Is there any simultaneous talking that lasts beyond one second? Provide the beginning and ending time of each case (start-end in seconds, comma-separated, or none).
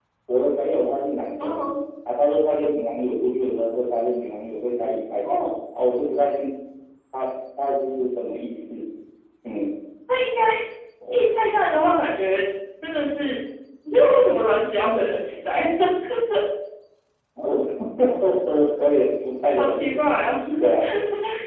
none